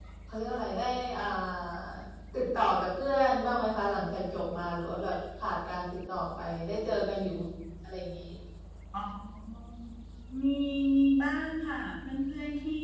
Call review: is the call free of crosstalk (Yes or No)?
Yes